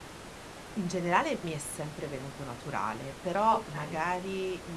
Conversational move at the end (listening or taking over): listening